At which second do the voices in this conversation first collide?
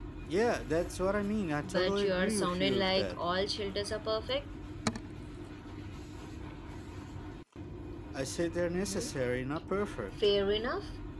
1.6 s

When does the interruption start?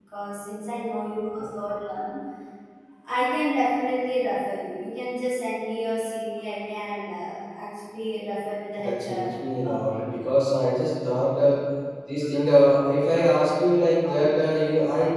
8.8 s

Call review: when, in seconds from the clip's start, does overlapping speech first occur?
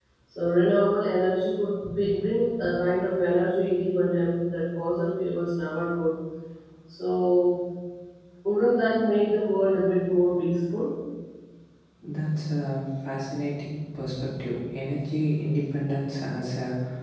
none

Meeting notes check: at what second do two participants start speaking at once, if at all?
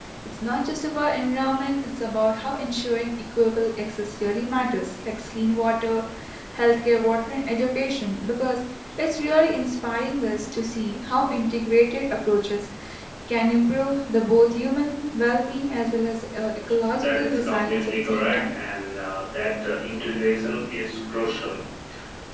16.9 s

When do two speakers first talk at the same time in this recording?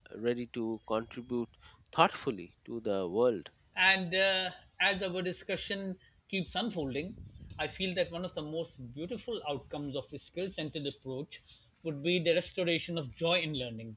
none

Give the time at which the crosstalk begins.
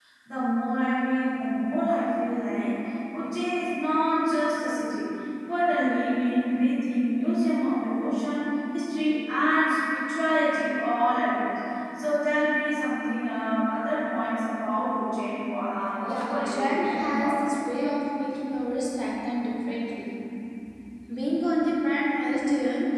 16.0 s

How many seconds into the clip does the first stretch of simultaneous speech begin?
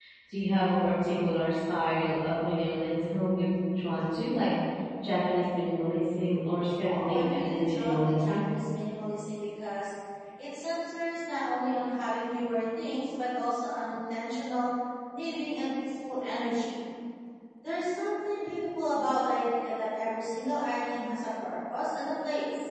6.8 s

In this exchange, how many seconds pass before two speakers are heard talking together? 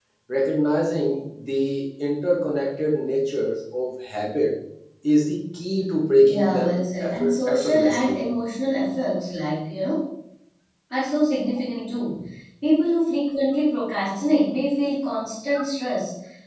6.2 s

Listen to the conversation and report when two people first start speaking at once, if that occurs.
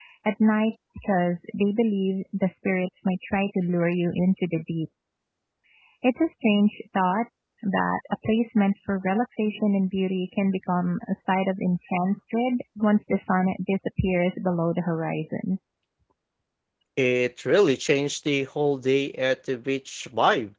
none

